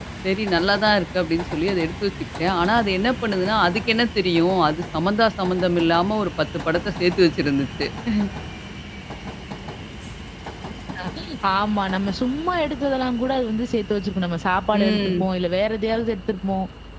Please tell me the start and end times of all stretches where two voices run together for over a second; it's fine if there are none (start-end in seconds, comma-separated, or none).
none